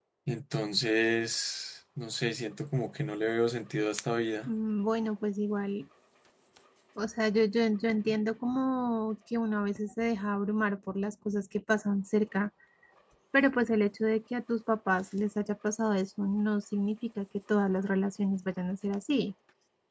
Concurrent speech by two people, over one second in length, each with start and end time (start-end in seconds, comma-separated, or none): none